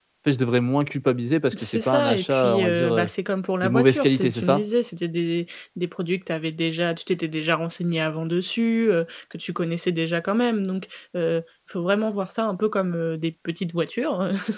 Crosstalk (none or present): present